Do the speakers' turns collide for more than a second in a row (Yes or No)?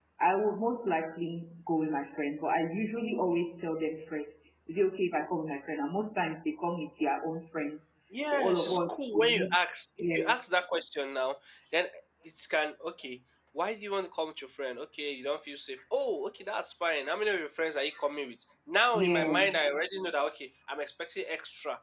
Yes